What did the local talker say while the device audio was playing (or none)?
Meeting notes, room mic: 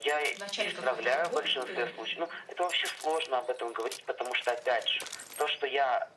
в начале какой-то работы,